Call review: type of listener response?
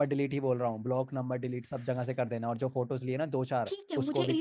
taking over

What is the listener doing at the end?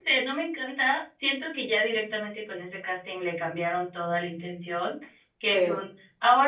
listening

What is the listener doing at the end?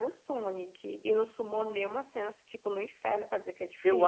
taking over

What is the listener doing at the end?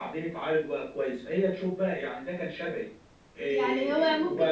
taking over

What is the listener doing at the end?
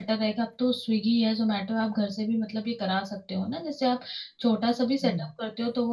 listening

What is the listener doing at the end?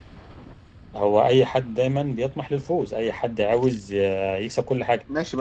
taking over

